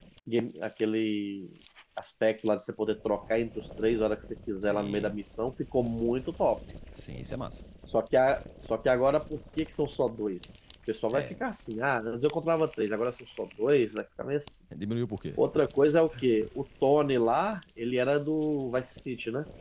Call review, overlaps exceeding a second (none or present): none